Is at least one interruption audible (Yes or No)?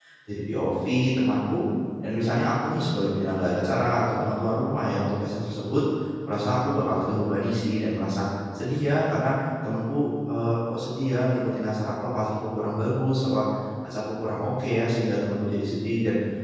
No